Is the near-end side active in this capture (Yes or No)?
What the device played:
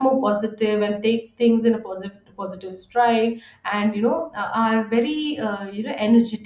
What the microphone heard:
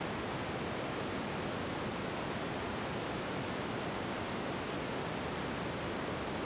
No